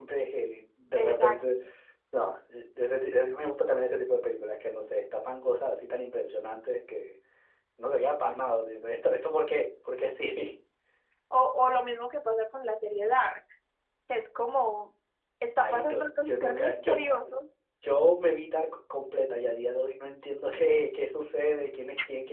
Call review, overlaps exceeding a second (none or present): present